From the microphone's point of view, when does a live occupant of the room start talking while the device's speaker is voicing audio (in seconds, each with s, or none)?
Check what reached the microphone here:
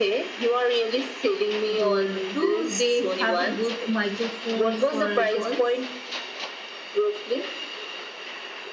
1.8 s